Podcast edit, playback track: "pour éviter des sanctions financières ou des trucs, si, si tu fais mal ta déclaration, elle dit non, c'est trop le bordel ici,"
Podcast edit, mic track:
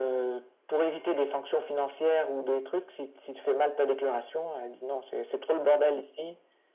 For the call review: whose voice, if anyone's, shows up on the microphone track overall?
echo only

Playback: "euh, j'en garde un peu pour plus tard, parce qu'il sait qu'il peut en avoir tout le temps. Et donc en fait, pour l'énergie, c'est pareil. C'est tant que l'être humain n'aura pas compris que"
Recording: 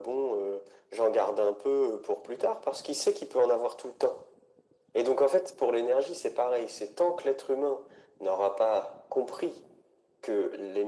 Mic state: echo only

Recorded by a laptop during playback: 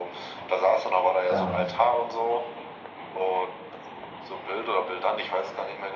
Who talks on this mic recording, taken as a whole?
both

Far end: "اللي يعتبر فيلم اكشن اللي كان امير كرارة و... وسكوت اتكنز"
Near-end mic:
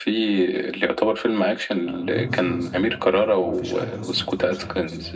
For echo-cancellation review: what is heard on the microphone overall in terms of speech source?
both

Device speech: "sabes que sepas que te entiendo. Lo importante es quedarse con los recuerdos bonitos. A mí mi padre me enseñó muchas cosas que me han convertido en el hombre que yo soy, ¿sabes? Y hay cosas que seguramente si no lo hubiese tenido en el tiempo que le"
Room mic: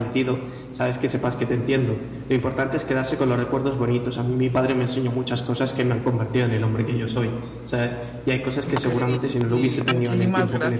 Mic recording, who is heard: both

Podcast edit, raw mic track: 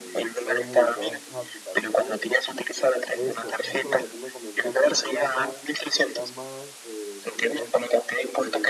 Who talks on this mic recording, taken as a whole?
both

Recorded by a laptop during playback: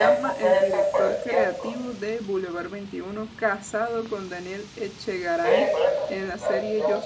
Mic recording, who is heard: both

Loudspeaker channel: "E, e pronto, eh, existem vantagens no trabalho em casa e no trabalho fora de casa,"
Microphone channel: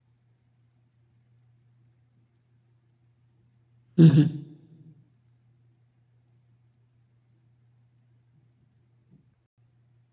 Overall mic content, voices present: user only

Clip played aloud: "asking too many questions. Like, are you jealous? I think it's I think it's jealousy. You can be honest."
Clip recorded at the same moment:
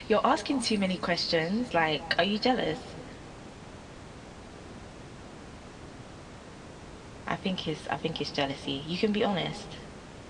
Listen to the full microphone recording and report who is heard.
echo only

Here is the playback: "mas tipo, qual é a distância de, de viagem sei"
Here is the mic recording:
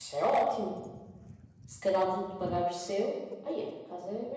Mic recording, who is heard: user only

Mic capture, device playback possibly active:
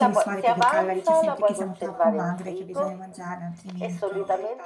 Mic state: both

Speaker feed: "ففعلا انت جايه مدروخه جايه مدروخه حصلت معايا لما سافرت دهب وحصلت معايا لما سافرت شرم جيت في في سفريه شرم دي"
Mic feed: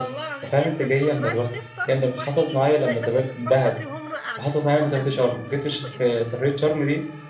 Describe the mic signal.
both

